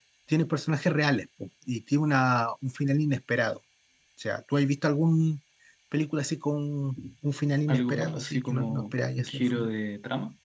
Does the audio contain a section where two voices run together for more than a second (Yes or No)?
Yes